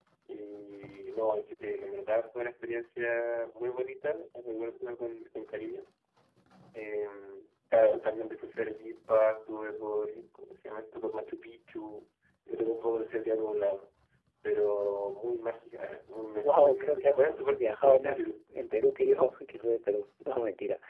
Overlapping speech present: Yes, from 16.4 s

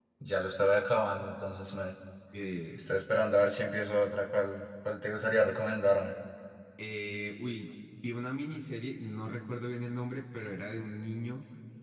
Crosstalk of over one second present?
No

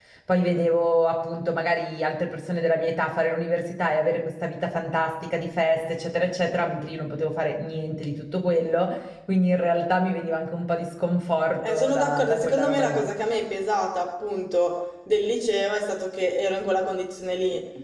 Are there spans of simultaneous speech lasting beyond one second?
Yes, from 11.6 s

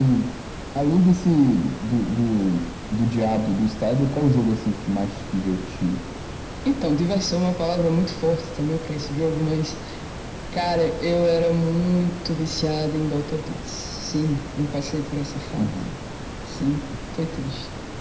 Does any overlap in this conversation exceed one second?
No

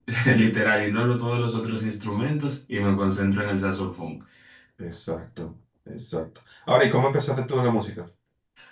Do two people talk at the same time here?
No

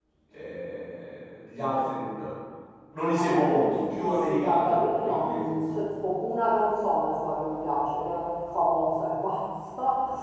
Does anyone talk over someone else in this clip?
Yes, from 3.1 s

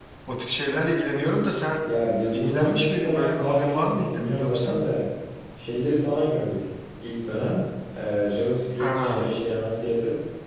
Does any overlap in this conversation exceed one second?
Yes, from 2.3 s

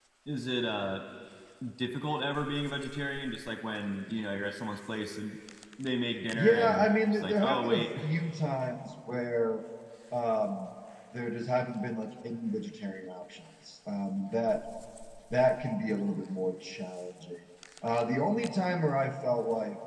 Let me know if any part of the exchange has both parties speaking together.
Yes, from 6.3 s

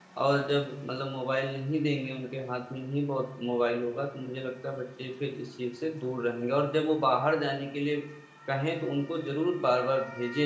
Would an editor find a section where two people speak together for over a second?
No

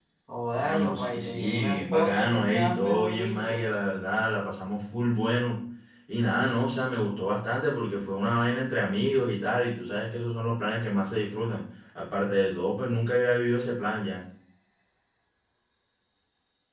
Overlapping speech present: Yes, from 0.6 s

